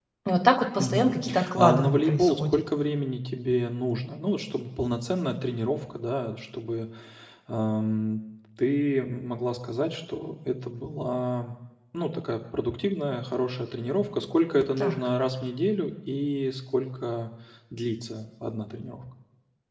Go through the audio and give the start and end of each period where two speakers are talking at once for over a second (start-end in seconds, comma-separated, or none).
0.8-2.6